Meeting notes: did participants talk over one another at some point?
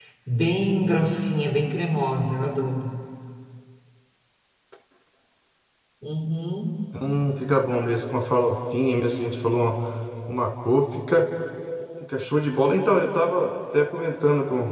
No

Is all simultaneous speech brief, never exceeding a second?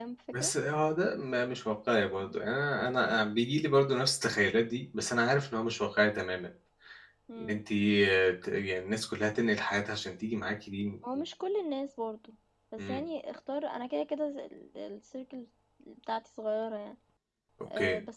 Yes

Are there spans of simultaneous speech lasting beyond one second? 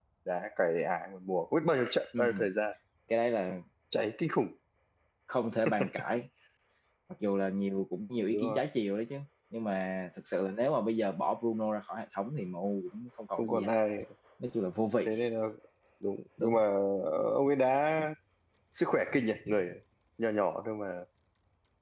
No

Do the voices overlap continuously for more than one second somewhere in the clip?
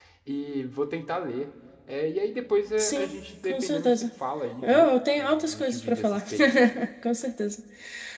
Yes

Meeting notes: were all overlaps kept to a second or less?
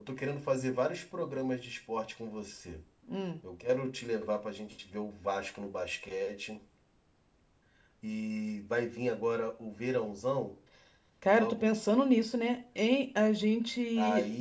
Yes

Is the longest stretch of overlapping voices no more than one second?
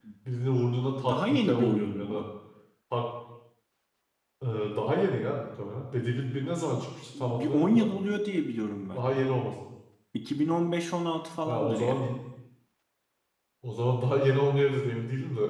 No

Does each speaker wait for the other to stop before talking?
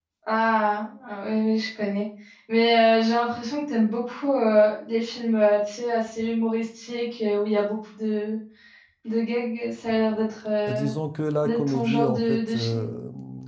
No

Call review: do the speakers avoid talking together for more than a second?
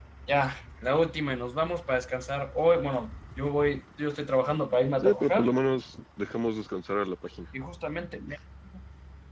Yes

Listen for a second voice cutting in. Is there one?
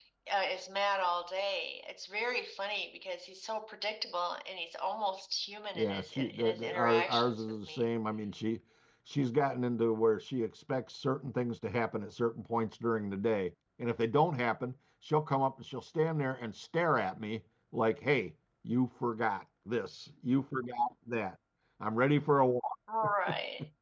Yes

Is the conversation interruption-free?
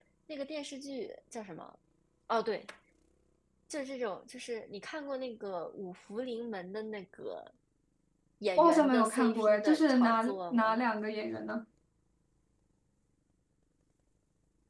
No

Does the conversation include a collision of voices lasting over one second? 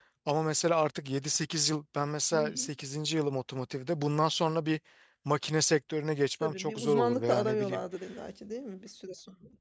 Yes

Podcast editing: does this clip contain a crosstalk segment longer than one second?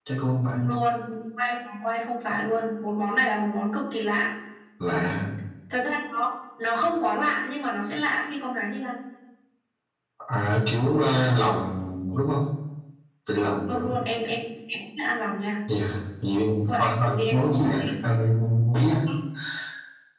Yes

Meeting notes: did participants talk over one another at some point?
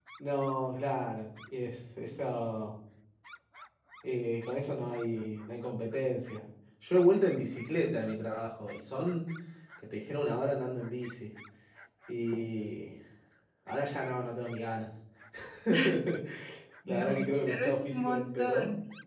Yes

